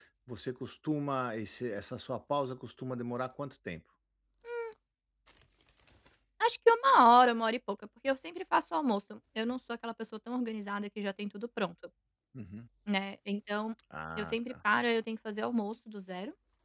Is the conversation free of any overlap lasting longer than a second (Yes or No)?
Yes